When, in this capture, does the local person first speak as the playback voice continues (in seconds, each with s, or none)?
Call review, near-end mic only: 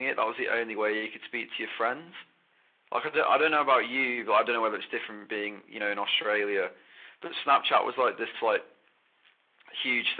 none